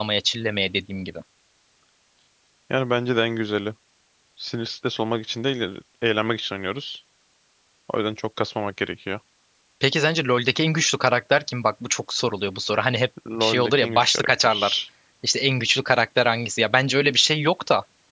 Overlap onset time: 13.2 s

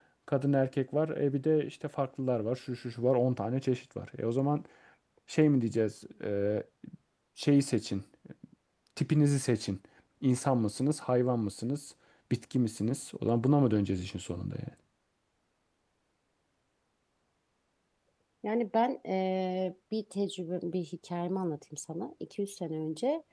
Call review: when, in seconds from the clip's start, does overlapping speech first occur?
none

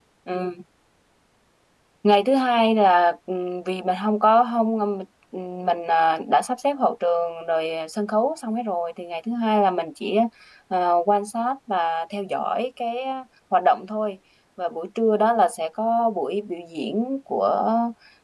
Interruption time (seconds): none

